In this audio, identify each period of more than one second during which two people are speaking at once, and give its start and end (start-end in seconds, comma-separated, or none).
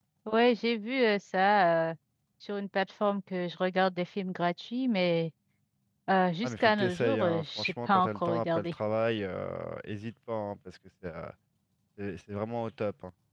6.4-8.7